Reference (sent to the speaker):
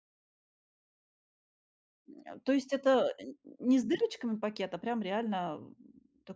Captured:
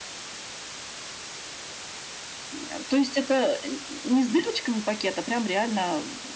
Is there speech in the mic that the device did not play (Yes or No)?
No